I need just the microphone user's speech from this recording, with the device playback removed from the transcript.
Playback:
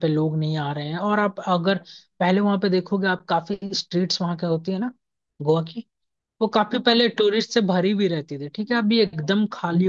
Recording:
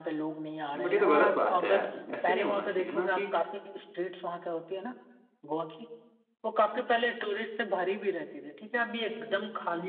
नहीं बट ये तो गलत बात है यार ऐसे नहीं होना चाहिए ना कि

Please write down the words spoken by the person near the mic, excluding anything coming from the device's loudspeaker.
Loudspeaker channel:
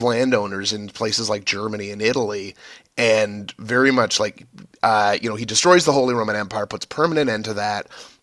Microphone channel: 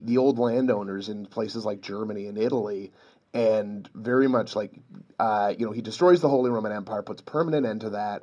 none

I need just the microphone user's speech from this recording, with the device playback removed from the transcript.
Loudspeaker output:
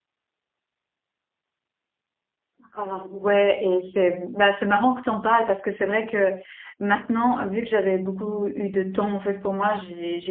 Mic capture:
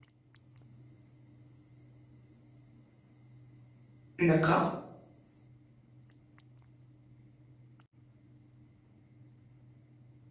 d'accord.

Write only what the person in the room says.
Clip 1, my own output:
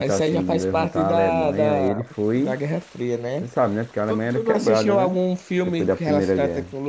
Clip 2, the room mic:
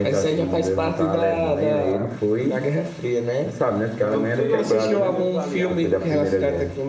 Tem uns eixos e os aliados.

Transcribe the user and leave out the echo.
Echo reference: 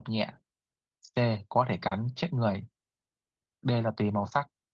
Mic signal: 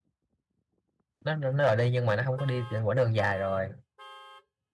nó nó nó rồi đi nhưng mà nó không có đi trên quãng đường dài rồi

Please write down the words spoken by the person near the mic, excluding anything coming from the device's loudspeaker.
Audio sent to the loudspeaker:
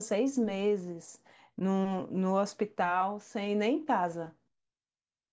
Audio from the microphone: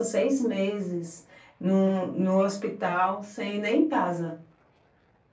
none

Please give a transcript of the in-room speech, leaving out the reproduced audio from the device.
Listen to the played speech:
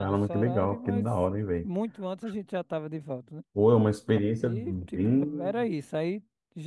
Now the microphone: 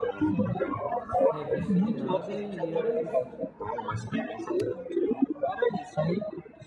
revista de nada e era isso.

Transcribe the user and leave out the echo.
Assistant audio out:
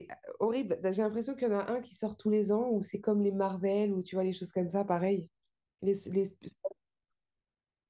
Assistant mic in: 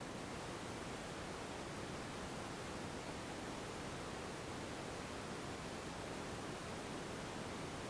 none

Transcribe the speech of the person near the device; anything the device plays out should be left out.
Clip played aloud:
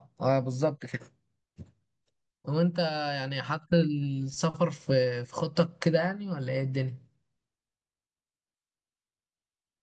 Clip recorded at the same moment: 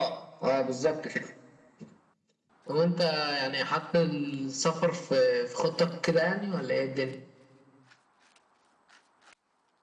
none

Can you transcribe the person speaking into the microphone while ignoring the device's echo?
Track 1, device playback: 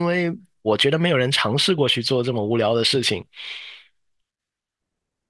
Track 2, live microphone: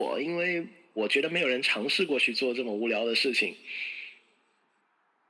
none

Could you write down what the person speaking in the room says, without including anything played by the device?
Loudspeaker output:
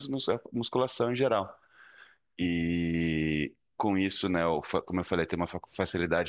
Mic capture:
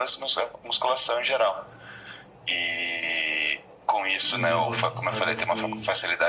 Inclusive, o ano passado eu fui,

